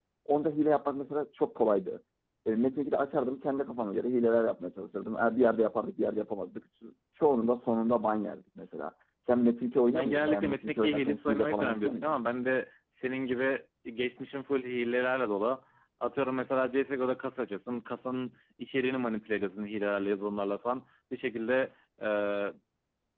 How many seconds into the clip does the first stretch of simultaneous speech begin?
9.9 s

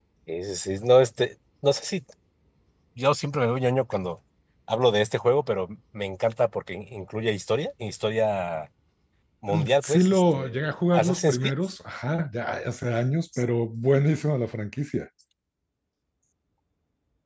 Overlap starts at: 9.5 s

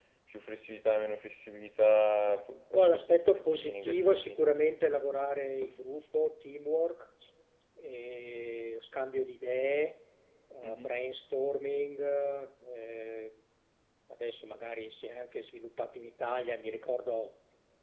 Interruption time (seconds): 2.7 s

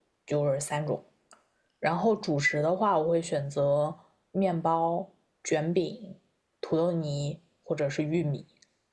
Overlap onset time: none

